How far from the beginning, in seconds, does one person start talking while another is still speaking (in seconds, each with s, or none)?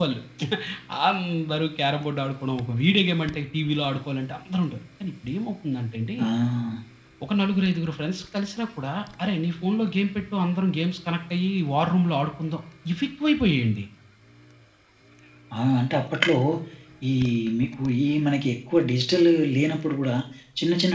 none